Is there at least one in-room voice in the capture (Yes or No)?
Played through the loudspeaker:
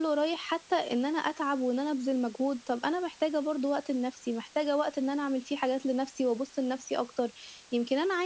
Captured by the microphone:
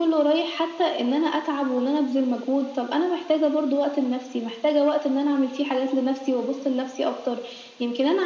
No